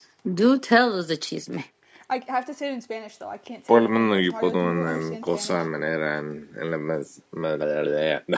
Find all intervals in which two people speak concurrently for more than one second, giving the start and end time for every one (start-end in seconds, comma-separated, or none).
3.7-5.6